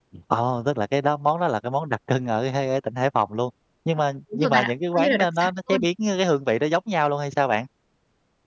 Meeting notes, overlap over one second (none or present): present